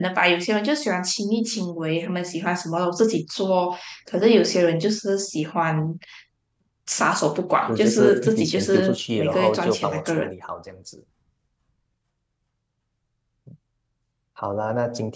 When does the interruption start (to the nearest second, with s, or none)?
8 s